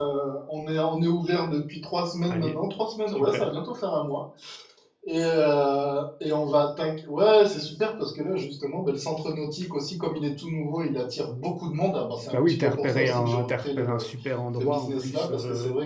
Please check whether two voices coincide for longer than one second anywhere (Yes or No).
Yes